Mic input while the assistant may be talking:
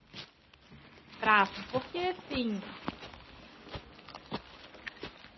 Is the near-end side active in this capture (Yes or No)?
Yes